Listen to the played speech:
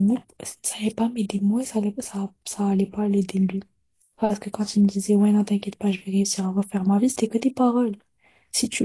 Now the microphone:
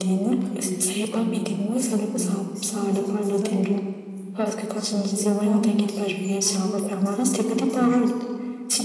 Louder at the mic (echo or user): echo